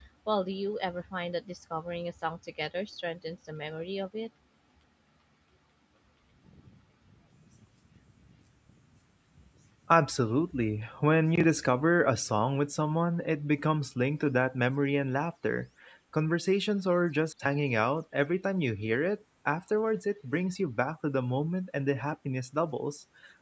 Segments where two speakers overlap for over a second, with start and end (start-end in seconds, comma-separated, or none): none